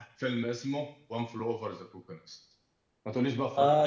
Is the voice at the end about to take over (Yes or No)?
Yes